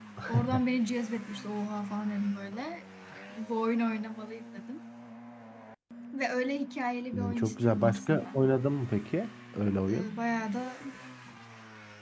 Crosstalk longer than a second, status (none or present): present